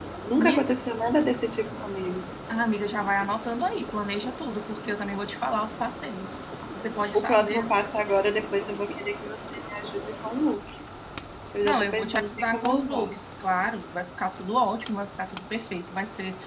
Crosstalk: present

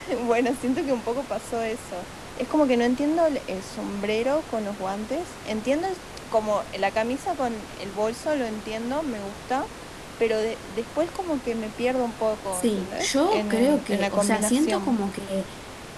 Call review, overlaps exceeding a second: present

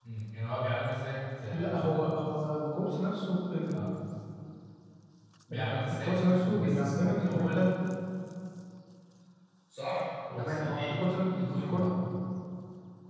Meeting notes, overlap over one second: present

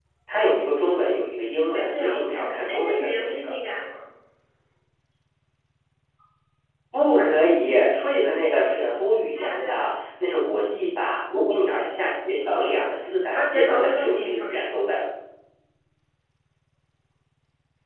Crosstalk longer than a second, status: present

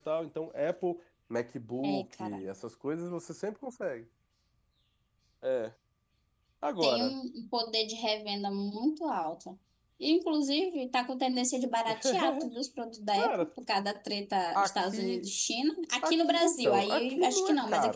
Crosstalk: present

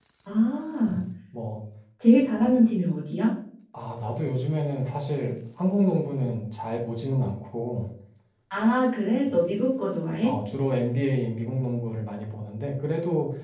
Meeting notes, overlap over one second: none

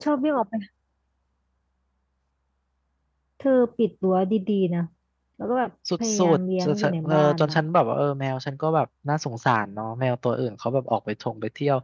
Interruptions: present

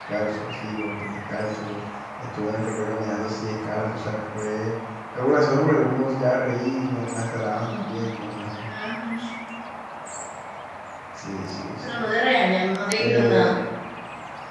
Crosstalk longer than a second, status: none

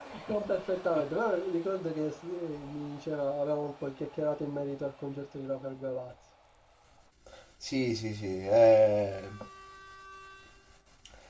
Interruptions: none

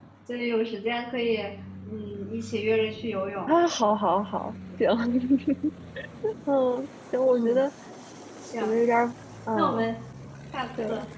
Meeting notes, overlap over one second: none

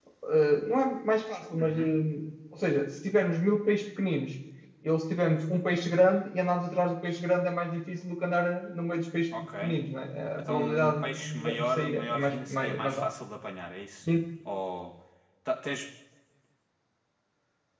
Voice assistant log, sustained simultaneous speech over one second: present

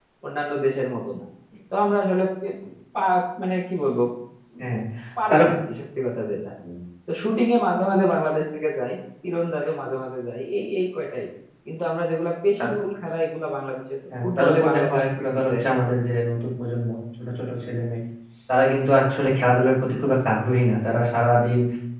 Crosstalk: present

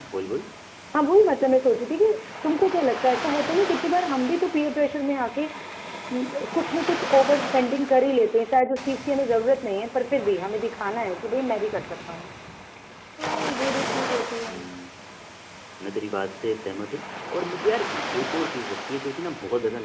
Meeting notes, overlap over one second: none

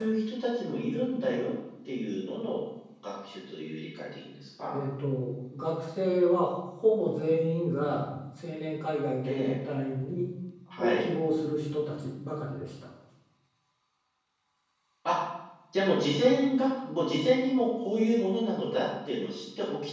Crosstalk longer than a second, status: none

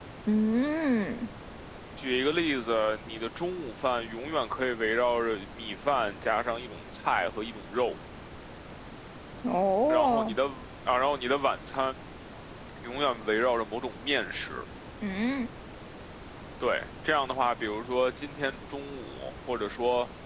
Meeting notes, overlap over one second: none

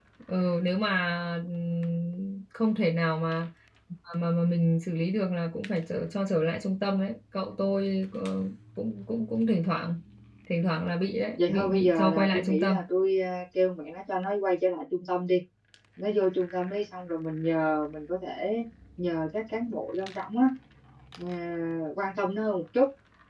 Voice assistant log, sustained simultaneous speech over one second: present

